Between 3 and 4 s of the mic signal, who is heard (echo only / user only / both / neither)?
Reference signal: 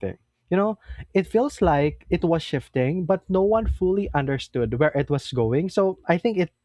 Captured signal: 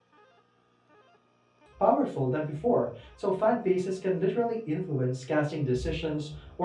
user only